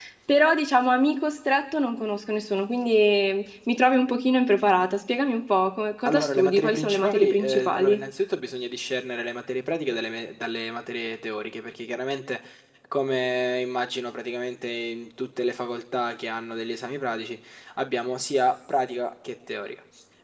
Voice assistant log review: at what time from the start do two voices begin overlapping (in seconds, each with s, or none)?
6.0 s